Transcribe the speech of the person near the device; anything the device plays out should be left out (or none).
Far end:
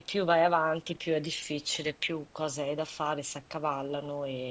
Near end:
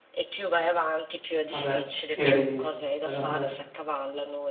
Ah beh, eri bella fresca.